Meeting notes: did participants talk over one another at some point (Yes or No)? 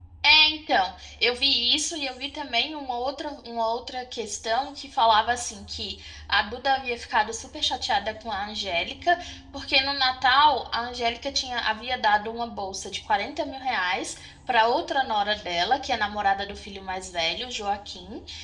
No